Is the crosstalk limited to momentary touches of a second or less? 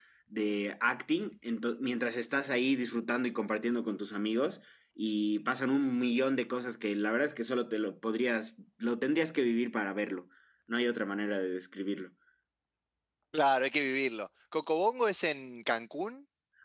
Yes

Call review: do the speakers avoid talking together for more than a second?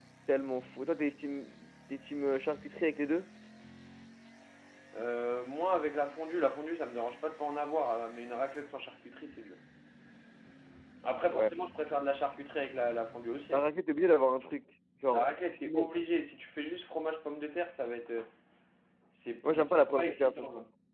No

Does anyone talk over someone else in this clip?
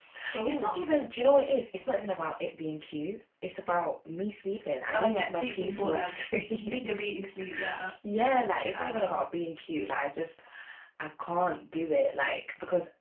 Yes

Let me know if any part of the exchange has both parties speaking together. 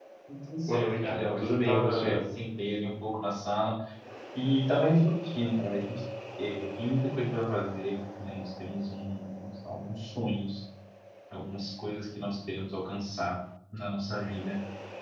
Yes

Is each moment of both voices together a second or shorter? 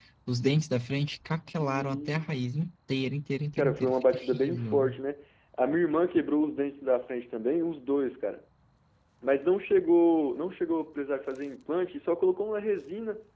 No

